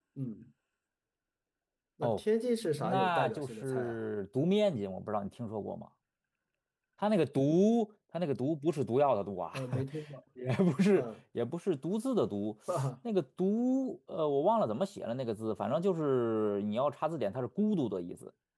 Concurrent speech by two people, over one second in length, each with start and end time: 2.8-4.0

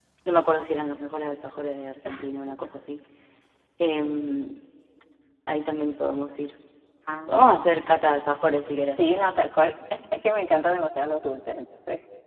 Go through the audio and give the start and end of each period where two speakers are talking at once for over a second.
none

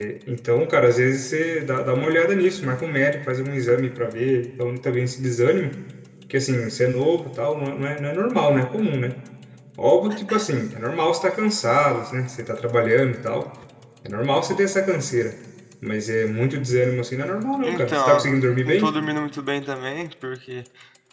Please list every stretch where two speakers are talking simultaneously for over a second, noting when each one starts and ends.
17.6-18.9

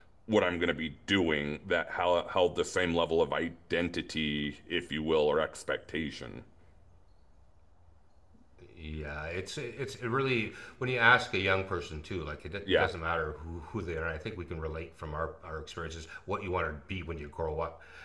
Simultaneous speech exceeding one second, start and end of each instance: none

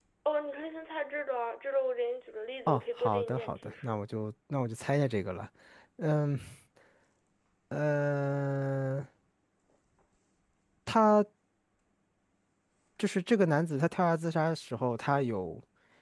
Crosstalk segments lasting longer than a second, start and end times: 2.7-4.0

